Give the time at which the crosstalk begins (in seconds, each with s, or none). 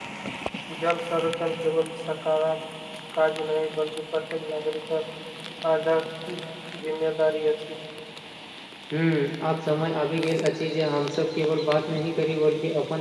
none